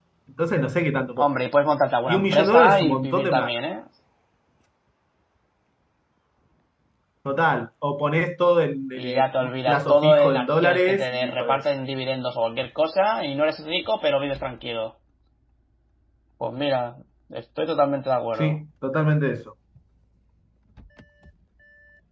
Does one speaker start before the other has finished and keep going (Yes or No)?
Yes